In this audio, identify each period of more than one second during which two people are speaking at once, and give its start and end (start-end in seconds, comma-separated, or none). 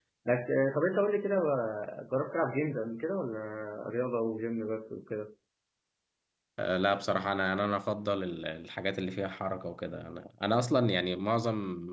none